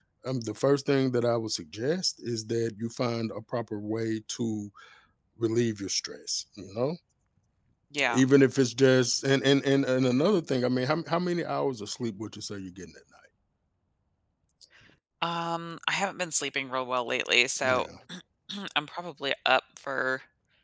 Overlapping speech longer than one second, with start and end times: none

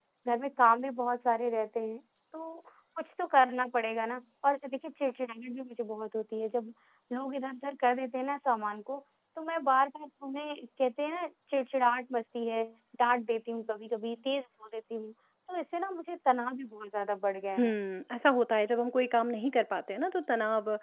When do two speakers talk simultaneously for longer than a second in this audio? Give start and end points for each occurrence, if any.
none

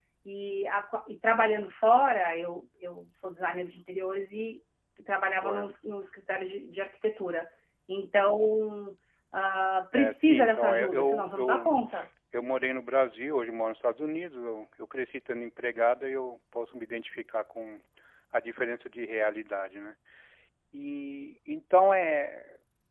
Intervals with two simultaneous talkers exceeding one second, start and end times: 9.9-11.7

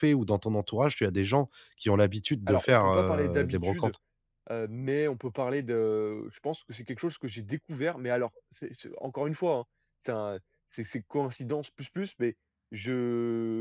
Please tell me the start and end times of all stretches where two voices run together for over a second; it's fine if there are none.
2.5-3.9

